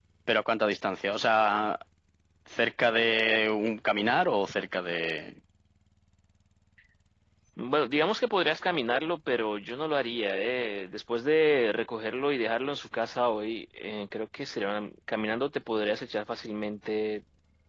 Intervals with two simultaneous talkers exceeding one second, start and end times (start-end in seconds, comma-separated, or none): none